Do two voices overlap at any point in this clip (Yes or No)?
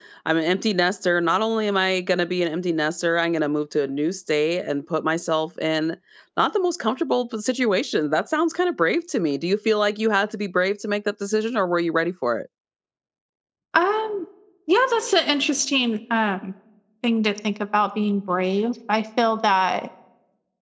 No